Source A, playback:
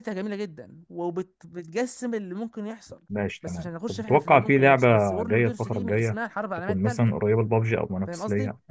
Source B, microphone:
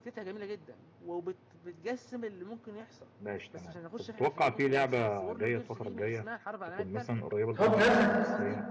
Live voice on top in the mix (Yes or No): Yes